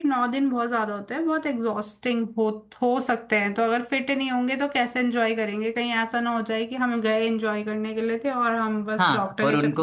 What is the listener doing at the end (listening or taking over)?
taking over